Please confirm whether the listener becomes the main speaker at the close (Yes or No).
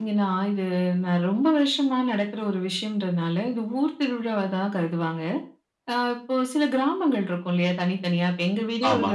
No